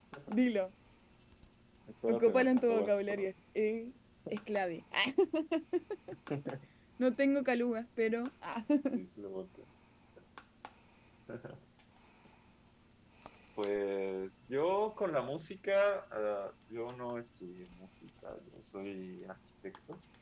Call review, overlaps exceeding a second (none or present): present